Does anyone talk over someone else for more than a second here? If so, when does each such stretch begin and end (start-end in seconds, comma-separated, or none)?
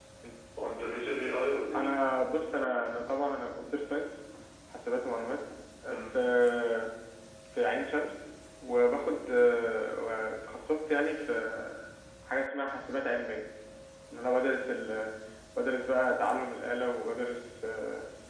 none